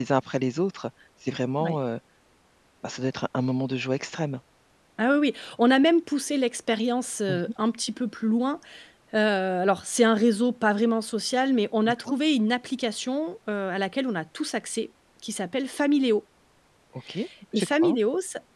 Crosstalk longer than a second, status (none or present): none